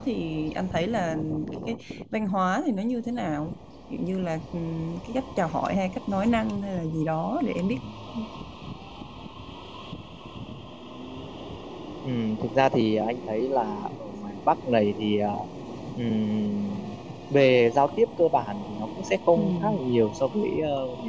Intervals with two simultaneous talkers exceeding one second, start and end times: none

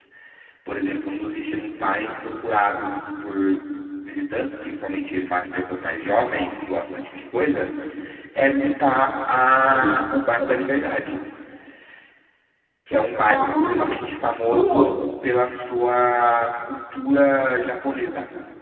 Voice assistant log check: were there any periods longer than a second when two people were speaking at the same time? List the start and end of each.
13.3-14.8

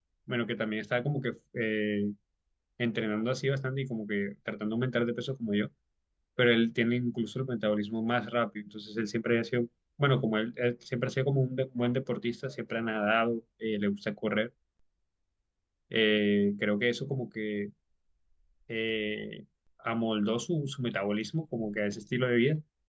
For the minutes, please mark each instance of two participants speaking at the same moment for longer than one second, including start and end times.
none

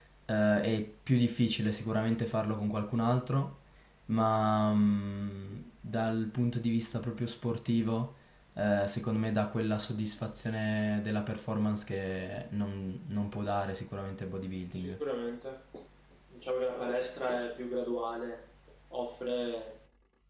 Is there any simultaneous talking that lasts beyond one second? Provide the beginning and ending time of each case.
none

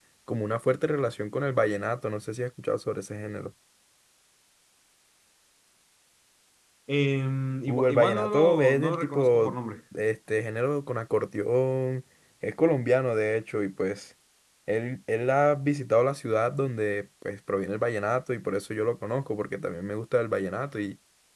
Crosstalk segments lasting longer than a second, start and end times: 7.7-9.5

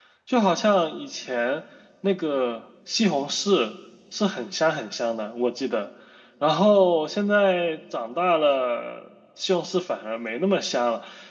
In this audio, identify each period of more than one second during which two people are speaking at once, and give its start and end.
none

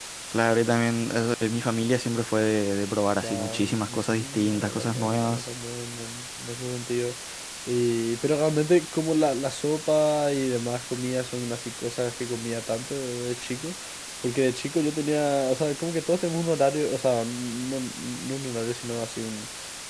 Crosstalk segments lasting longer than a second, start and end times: 3.2-5.5

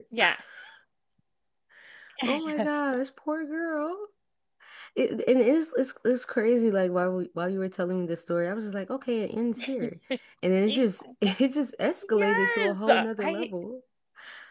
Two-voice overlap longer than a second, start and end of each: 12.1-13.5

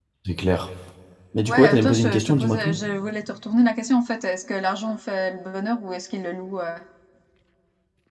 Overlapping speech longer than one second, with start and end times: 1.5-2.8

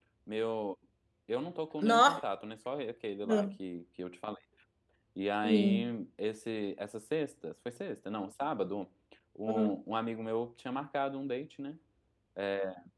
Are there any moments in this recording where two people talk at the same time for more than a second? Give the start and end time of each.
none

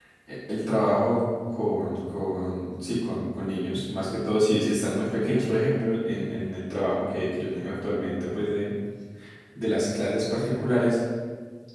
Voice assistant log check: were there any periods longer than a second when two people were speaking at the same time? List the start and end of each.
none

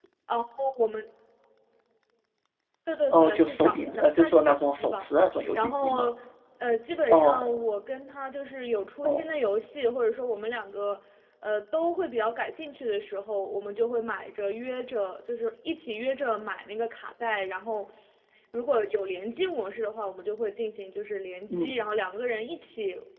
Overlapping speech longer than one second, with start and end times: 3.1-5.1

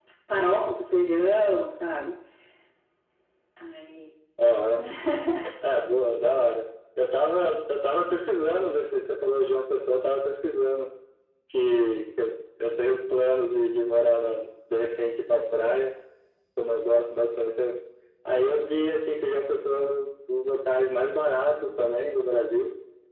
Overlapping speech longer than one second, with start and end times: none

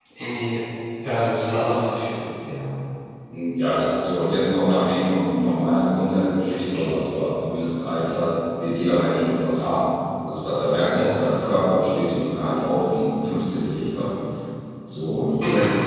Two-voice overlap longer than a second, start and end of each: none

